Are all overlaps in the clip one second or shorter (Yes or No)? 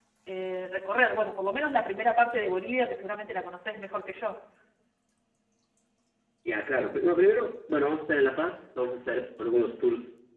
Yes